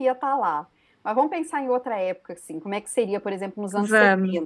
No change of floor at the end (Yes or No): Yes